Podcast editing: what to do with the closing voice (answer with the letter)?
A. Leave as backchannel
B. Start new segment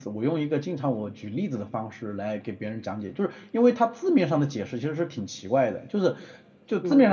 A